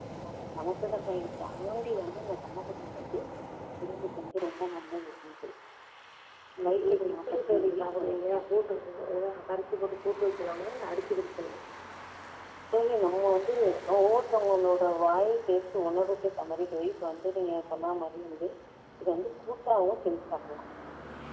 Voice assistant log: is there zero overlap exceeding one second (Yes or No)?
No